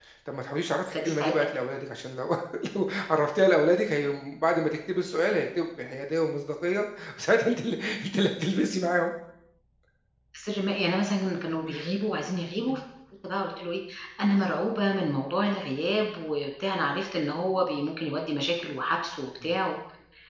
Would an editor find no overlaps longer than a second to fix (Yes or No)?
Yes